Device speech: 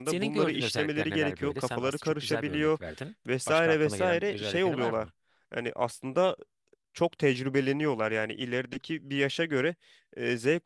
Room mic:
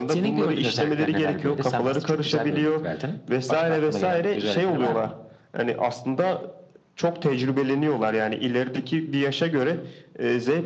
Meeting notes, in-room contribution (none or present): none